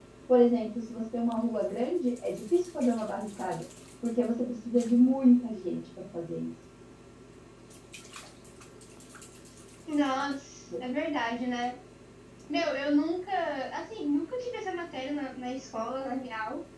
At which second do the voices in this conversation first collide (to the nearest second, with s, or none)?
none